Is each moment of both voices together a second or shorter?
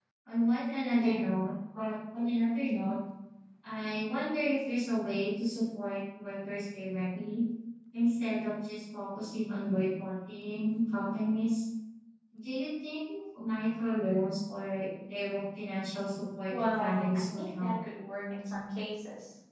No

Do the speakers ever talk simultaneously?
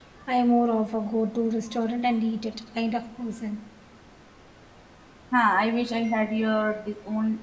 No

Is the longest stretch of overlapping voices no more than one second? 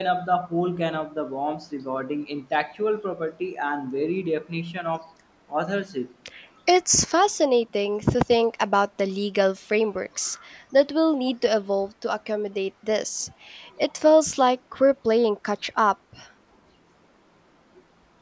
Yes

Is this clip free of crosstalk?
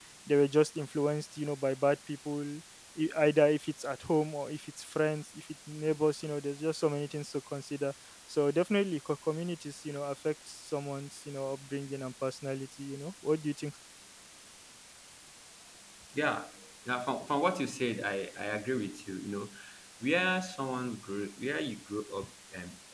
Yes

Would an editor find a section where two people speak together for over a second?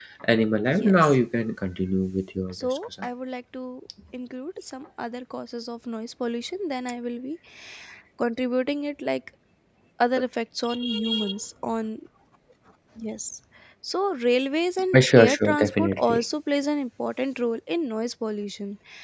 Yes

